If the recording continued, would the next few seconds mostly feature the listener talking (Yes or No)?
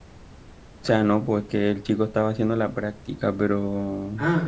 Yes